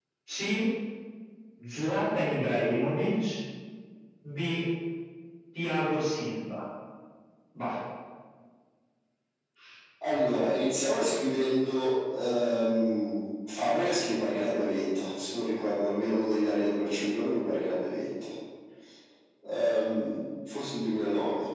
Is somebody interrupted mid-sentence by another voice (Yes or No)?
No